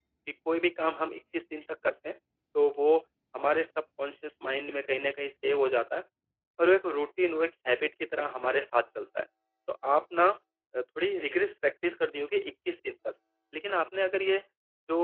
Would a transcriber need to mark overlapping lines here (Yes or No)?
No